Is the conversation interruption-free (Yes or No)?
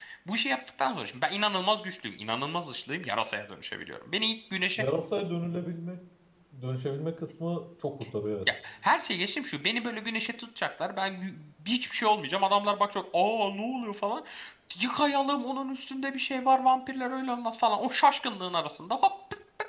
Yes